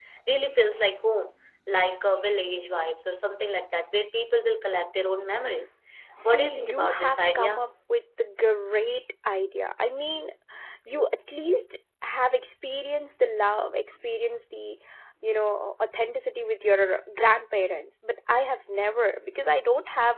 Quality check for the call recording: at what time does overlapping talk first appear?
6.2 s

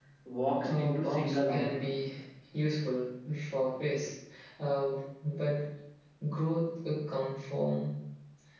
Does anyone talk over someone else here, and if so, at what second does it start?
0.6 s

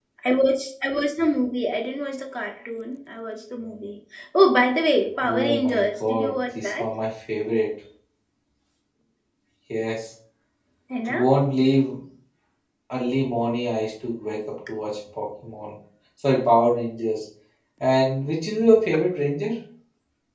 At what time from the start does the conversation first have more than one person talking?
5.2 s

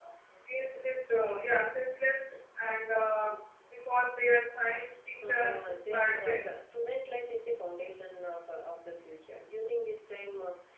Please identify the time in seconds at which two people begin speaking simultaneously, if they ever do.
5.2 s

